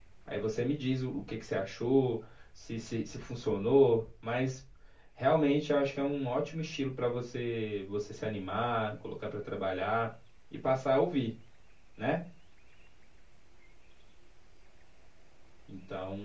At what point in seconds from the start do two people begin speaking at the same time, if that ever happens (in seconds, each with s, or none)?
none